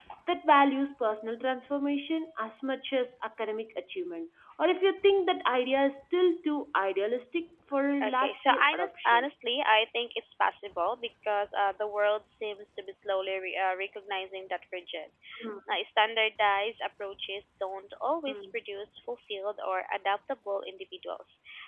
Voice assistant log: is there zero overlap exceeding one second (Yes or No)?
No